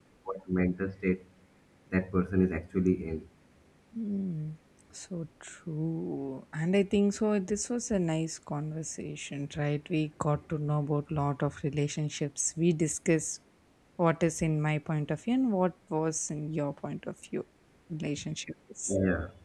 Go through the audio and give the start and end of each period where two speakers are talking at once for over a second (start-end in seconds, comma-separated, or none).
none